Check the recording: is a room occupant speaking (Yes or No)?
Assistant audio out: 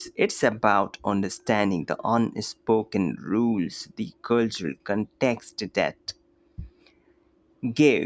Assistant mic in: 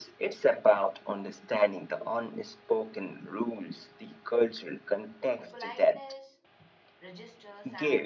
Yes